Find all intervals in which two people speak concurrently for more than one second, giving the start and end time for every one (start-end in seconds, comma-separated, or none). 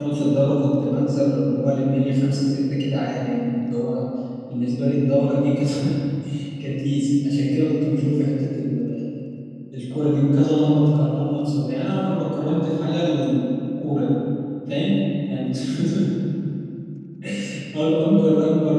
none